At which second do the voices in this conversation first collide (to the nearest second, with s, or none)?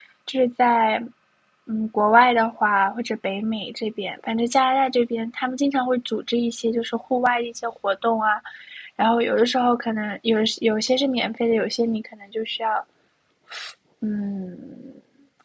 none